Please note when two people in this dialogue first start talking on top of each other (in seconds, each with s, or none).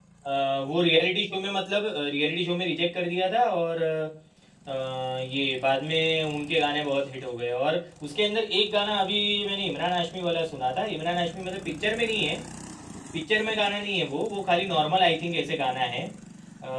none